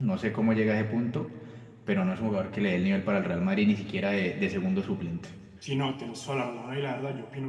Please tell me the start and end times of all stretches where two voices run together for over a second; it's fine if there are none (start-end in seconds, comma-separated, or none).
none